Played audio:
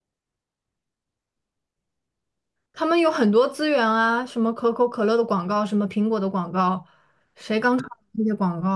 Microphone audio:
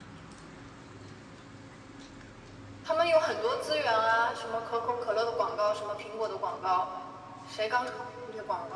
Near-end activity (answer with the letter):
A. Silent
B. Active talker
A